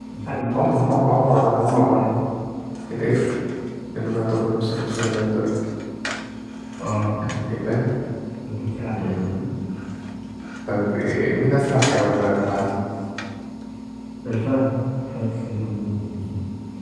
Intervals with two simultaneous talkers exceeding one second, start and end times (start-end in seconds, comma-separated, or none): none